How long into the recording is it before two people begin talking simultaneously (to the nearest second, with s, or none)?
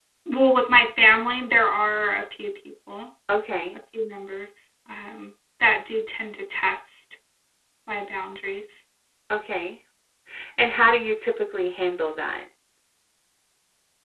none